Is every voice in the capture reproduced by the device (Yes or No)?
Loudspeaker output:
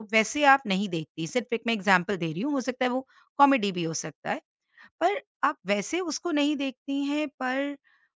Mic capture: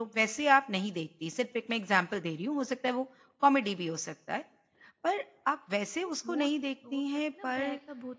No